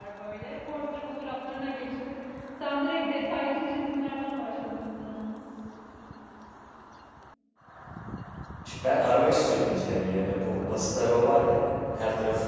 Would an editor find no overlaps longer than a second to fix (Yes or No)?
Yes